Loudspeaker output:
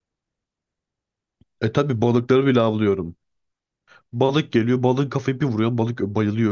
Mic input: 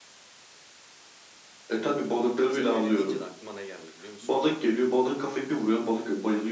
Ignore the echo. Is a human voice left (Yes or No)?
Yes